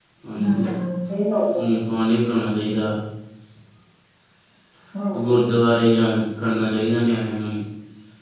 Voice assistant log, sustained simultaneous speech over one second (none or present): none